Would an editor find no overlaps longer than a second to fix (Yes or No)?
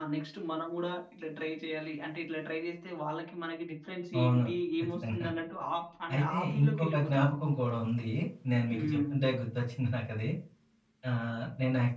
No